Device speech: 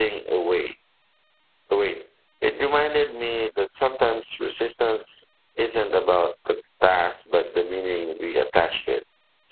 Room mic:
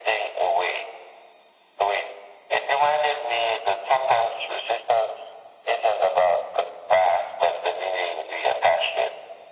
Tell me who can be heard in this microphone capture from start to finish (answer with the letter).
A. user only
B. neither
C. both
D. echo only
D